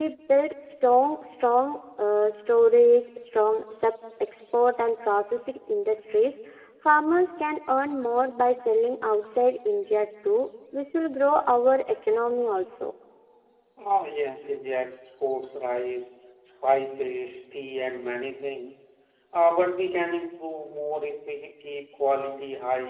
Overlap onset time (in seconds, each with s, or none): none